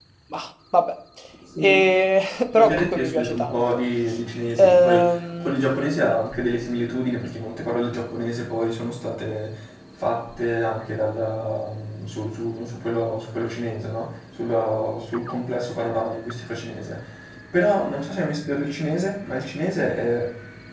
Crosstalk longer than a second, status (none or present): present